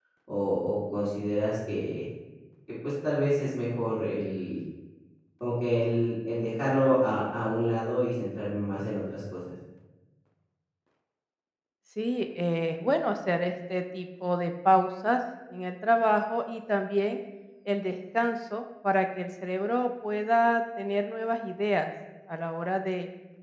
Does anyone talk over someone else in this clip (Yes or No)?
No